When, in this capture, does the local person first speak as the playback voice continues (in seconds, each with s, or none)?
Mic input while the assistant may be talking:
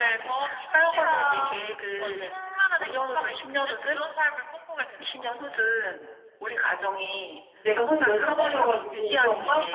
7.6 s